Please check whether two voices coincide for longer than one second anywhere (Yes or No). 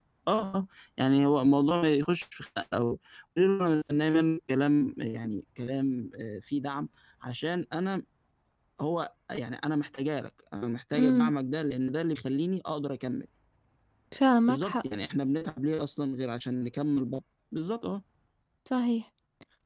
No